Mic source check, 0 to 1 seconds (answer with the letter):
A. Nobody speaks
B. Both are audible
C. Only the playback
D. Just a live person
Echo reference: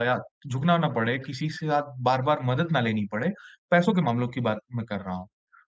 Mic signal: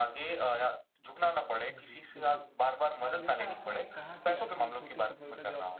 C